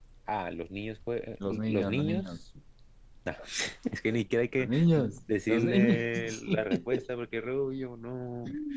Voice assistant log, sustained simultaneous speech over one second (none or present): present